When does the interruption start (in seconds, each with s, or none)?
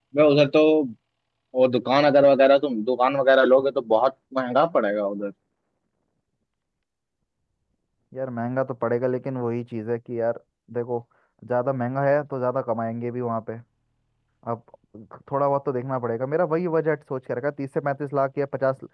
none